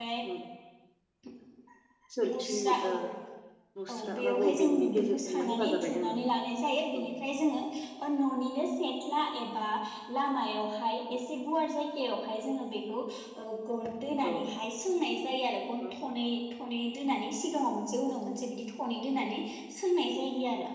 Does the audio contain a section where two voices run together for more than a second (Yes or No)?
Yes